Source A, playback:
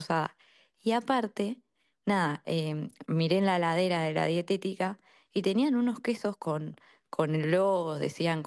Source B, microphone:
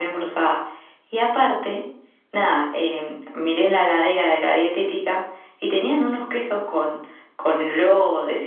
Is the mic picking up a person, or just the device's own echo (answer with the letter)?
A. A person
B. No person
B